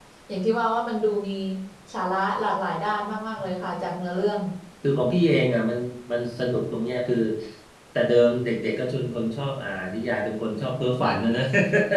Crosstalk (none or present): none